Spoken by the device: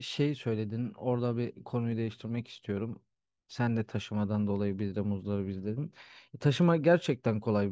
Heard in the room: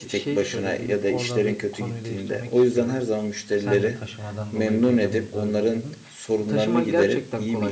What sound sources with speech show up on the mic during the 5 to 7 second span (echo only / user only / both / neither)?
both